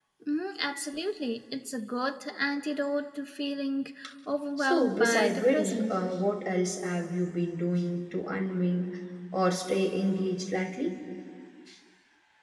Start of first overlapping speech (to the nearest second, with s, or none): 5 s